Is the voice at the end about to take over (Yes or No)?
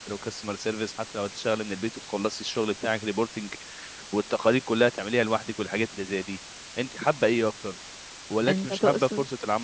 No